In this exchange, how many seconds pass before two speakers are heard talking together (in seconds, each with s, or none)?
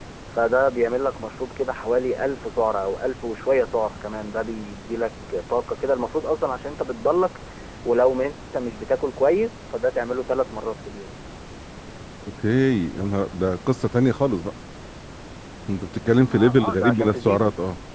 16.2 s